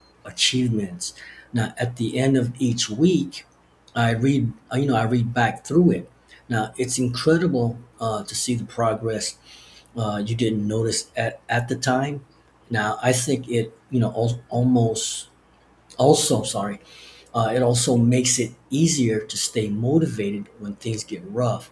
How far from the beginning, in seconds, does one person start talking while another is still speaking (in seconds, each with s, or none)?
none